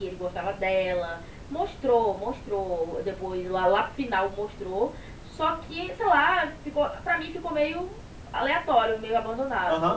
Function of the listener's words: taking over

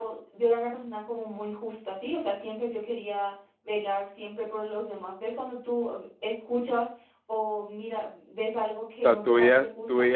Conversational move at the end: taking over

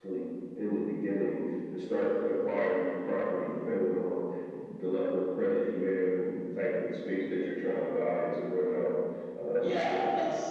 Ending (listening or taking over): taking over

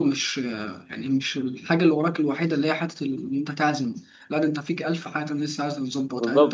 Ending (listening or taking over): taking over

